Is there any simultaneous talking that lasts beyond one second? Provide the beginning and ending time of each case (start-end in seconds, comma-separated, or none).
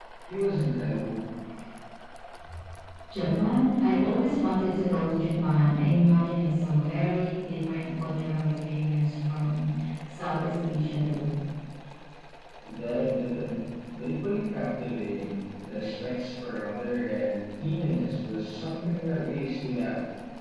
none